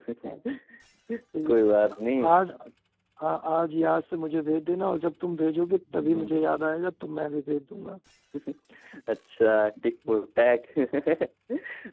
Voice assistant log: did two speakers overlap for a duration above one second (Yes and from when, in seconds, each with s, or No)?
No